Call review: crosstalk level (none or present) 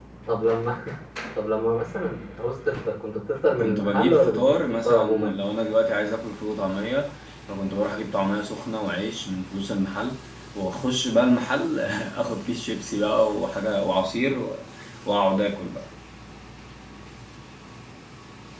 present